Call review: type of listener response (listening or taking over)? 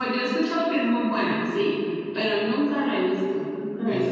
taking over